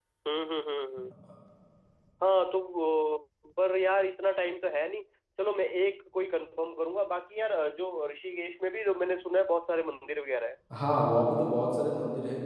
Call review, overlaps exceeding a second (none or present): none